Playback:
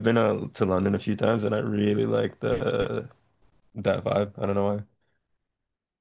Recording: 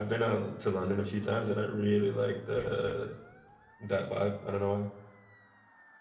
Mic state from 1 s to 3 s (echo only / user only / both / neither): echo only